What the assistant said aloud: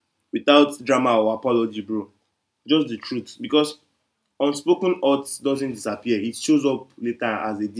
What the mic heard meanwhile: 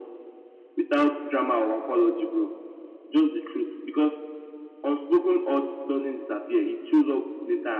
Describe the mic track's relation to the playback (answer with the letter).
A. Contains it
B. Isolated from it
A